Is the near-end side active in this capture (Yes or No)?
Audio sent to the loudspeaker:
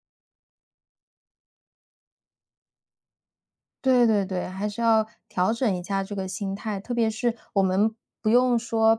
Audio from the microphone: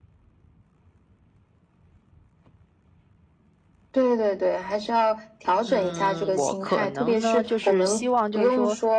Yes